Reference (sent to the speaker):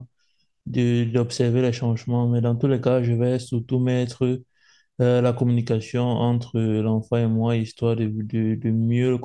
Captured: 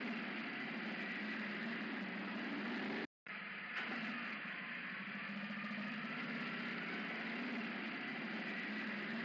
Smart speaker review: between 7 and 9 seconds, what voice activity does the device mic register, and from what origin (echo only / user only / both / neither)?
neither